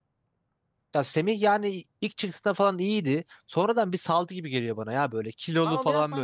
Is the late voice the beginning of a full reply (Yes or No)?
Yes